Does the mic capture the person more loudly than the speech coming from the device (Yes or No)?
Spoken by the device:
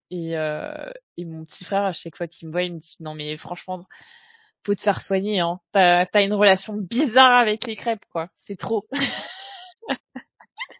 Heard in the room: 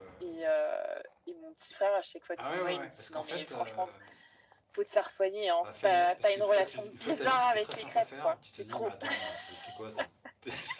No